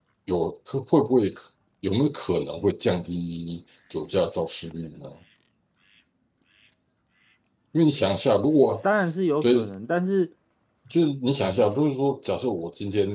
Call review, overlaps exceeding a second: none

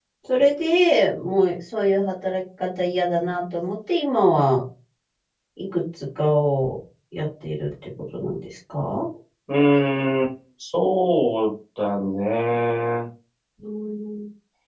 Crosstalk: none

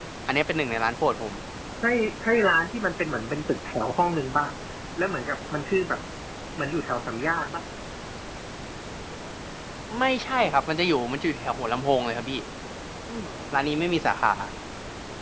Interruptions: none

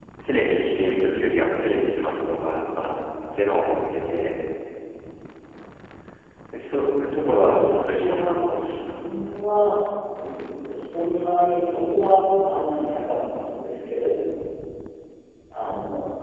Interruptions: present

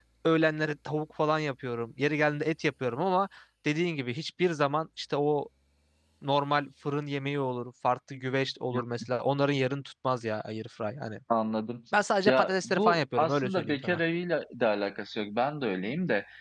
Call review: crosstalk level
present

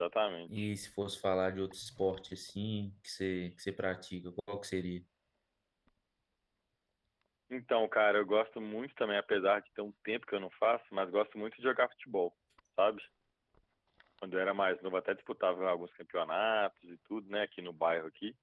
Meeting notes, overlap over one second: none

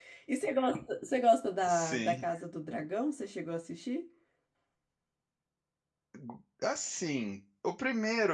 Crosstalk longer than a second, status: none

